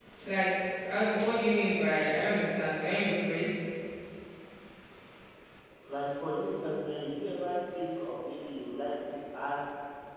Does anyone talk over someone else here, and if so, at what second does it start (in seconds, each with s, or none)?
none